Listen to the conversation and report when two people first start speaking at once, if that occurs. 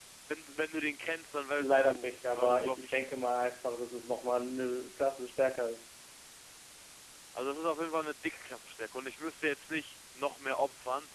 2 s

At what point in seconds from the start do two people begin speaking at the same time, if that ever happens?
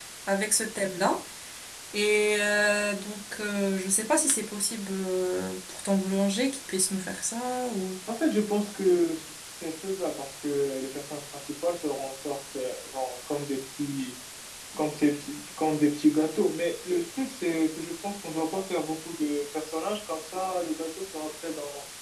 none

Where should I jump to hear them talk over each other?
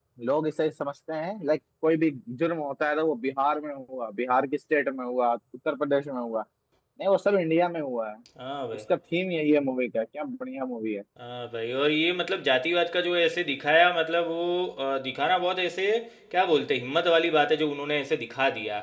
none

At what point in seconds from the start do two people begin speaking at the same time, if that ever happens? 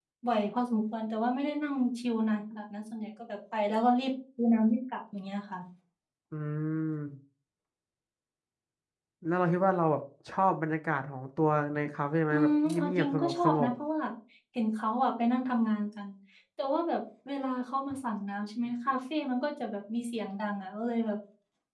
12 s

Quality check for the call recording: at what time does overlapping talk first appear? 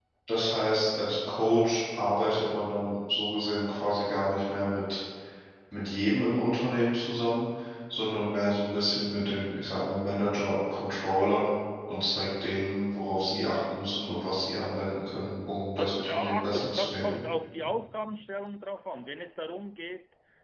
16 s

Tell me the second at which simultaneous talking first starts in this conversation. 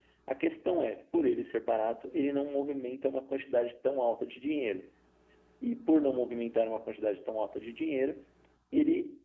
none

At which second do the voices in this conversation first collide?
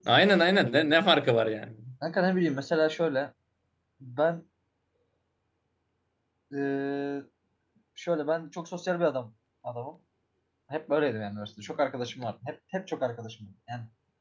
none

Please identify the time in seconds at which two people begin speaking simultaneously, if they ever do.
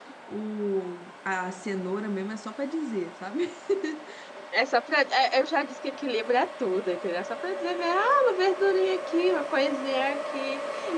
none

